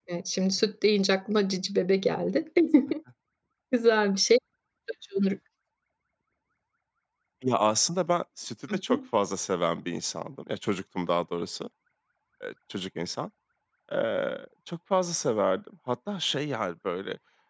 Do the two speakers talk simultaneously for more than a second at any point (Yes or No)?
No